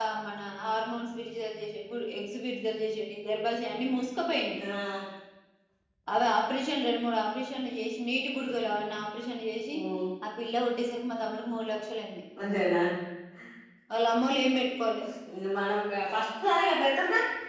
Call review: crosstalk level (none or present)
none